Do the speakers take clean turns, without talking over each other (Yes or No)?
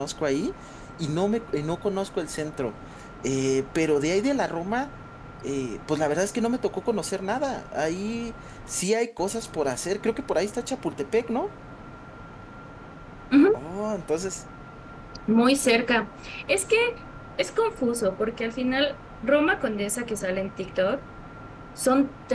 Yes